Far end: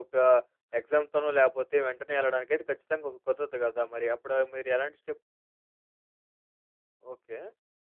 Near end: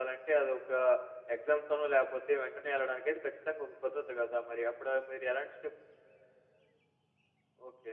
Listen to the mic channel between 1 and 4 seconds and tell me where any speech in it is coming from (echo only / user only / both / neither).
echo only